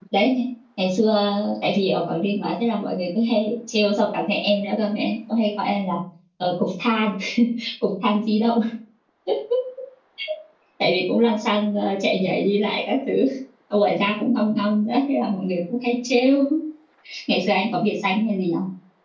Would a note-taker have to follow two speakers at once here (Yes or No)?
No